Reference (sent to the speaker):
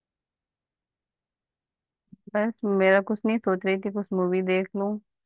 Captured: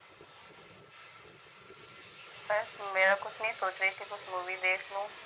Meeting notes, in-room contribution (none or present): none